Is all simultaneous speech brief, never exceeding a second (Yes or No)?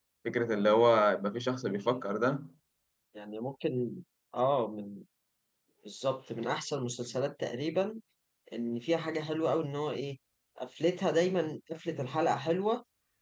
Yes